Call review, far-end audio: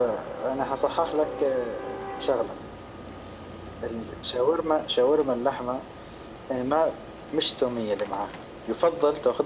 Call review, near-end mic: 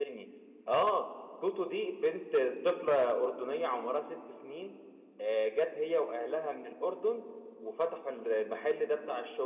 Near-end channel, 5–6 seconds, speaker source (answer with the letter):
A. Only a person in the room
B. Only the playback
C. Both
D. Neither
A